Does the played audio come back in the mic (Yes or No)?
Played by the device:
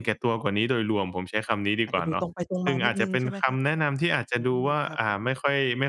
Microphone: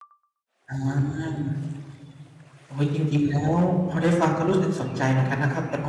No